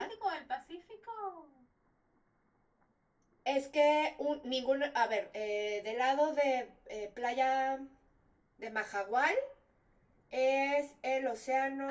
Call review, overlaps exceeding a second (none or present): none